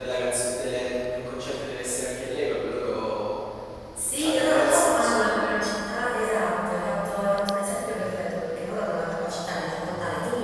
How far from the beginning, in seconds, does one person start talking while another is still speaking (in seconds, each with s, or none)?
4.0 s